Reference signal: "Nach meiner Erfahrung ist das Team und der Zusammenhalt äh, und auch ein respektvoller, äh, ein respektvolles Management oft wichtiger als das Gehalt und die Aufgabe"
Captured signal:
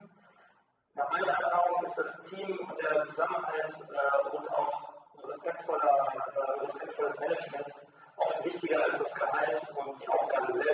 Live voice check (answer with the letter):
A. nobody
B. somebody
A